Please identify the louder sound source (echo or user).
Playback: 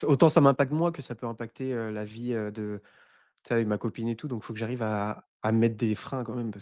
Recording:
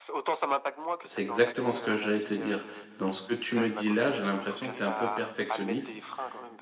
user